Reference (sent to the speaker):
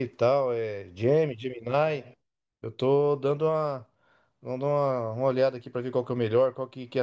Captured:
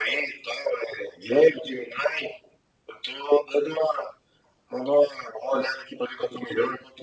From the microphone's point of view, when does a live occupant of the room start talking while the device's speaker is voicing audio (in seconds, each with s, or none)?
none